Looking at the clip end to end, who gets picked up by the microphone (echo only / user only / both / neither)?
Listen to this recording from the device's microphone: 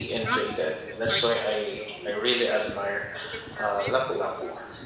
both